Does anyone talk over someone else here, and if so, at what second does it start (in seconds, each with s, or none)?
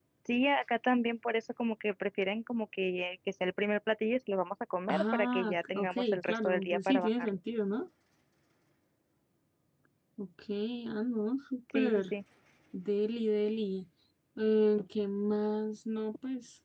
4.9 s